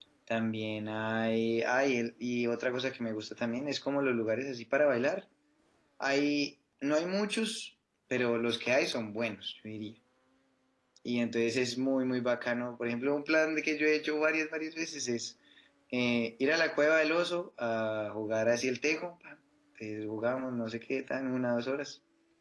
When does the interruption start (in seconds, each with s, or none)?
none